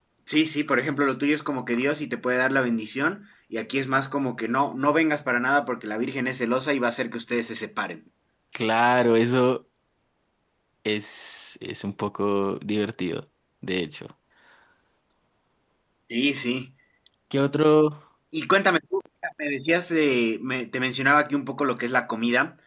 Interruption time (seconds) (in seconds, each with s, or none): none